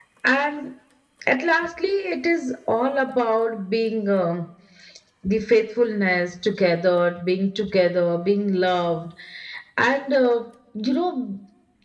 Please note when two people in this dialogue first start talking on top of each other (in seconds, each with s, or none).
none